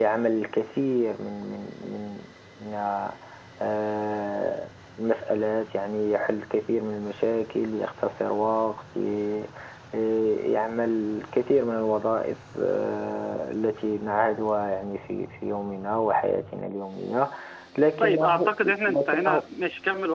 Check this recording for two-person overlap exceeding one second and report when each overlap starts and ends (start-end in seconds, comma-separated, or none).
18.0-19.4